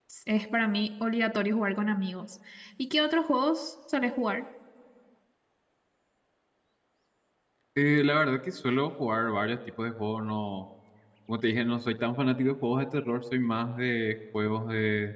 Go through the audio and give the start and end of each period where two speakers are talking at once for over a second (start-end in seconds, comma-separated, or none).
none